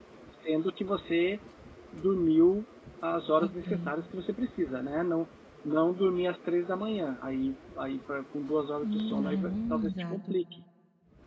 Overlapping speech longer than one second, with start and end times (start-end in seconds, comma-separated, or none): 8.8-10.2